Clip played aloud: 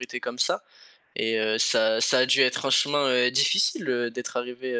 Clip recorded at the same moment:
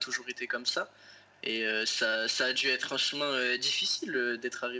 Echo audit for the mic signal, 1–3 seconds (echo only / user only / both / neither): echo only